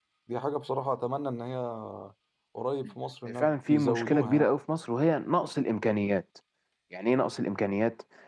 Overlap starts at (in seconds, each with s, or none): 3.3 s